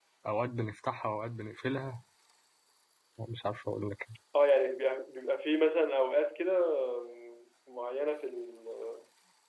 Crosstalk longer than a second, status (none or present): none